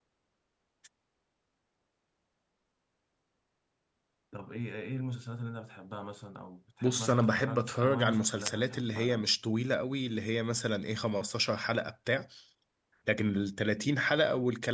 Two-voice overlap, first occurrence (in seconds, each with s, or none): 6.8 s